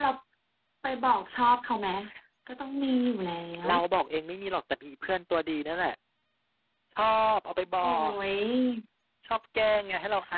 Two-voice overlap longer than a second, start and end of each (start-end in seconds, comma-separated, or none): none